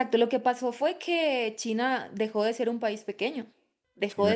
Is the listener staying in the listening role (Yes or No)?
No